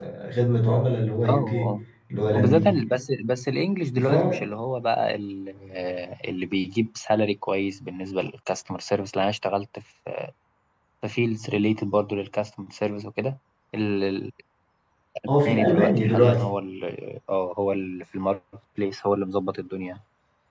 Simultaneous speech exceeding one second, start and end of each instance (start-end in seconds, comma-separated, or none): 15.3-16.5